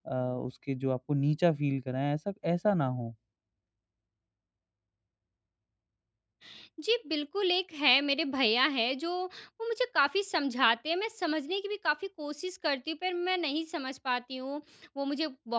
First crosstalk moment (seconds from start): none

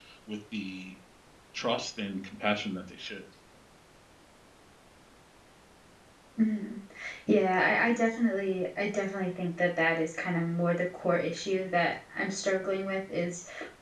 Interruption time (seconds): none

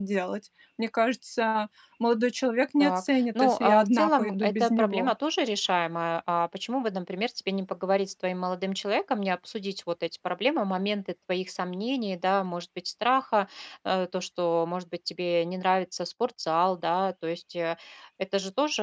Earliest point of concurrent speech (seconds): 3 s

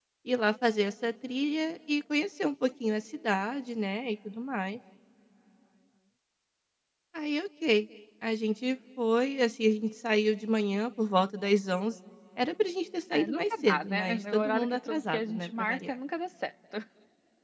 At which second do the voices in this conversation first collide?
13 s

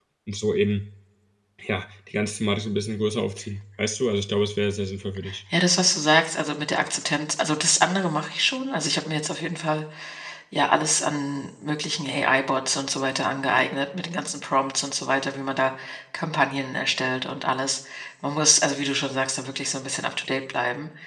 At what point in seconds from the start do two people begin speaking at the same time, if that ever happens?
none

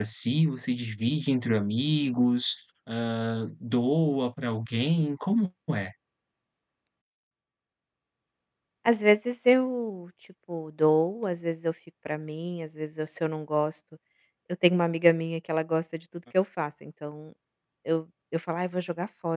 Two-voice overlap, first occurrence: none

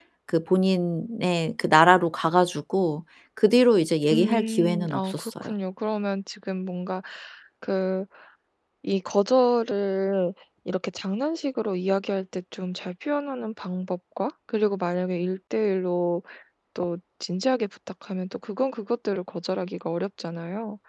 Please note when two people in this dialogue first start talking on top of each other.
4 s

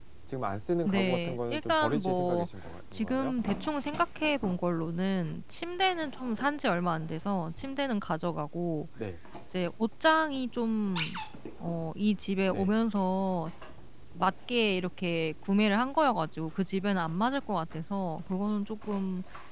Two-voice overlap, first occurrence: 1 s

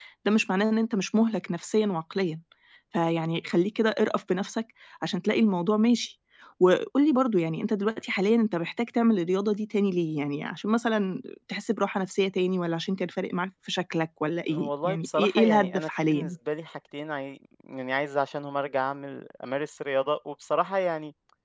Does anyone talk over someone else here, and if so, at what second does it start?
14 s

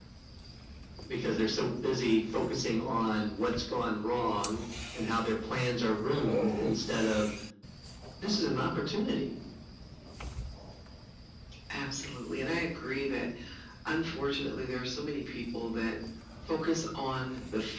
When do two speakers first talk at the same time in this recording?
none

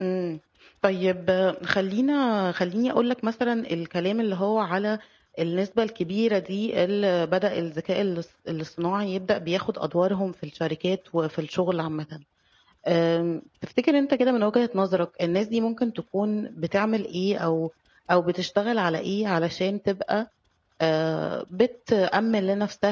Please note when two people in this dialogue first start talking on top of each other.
none

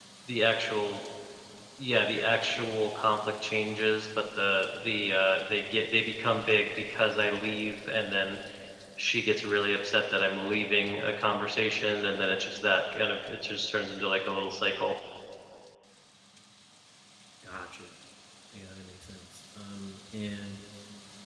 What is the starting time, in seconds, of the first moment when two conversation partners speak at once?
none

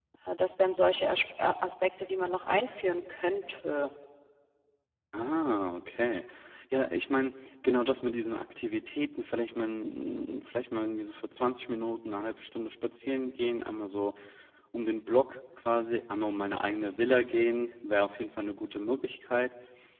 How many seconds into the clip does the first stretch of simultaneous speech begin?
none

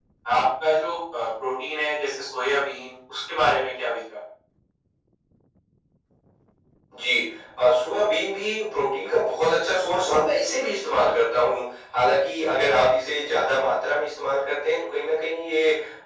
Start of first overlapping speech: none

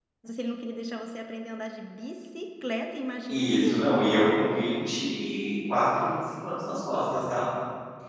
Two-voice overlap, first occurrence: 3 s

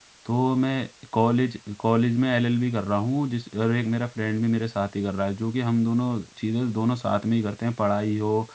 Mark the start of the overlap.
none

